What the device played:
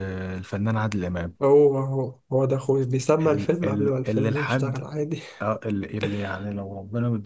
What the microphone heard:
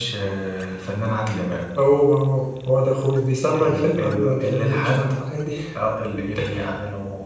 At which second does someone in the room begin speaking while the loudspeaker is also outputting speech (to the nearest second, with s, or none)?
none